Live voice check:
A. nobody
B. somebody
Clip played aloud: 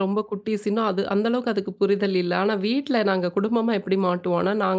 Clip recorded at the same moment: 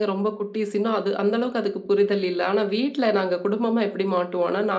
A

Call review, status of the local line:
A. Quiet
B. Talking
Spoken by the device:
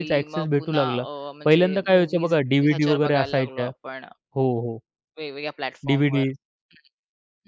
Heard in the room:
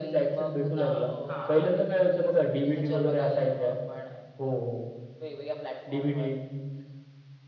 B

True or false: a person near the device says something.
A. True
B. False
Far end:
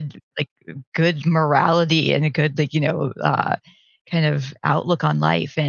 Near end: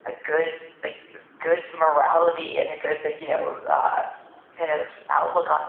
B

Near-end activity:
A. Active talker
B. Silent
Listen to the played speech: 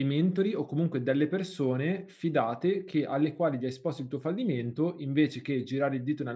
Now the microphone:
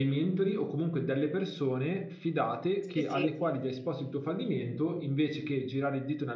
A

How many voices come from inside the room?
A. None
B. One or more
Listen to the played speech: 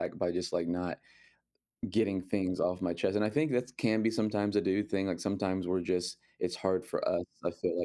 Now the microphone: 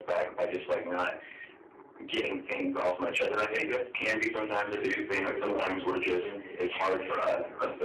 B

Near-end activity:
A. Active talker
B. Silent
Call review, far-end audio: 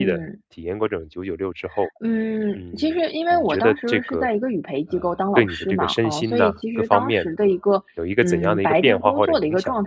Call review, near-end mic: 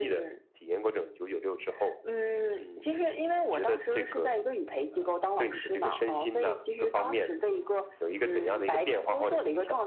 B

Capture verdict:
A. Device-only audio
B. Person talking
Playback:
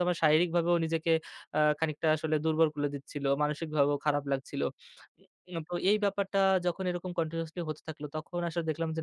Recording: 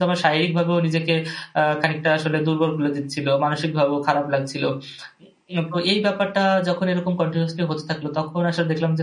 A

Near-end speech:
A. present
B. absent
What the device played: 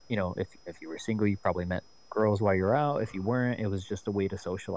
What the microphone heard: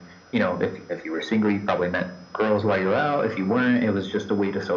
B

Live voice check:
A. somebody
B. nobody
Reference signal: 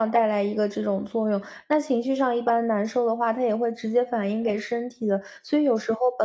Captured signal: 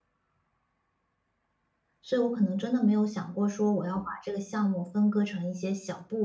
A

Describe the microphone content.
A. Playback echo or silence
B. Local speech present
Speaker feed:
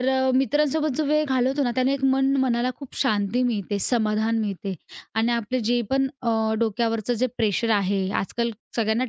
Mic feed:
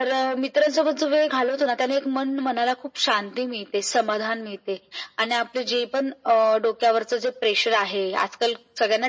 A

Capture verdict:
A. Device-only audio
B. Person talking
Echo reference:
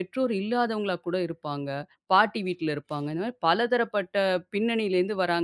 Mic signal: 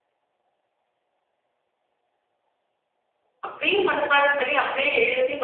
B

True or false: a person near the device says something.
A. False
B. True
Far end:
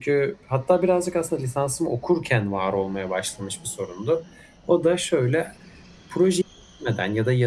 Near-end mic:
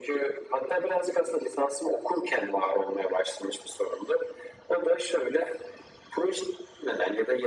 A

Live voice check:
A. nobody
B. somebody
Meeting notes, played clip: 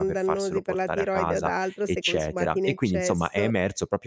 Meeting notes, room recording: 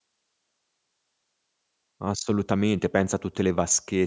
B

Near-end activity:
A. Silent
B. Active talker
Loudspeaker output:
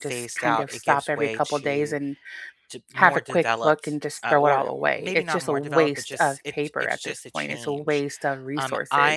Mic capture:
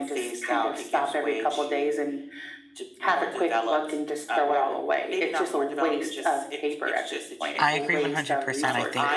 B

